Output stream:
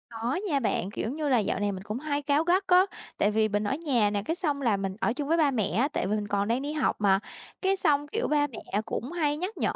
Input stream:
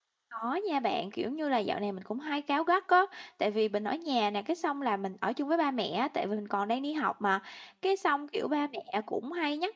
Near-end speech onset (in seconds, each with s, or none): none